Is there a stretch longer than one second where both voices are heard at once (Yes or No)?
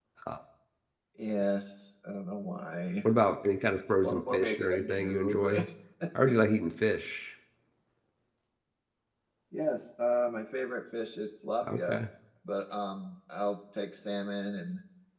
Yes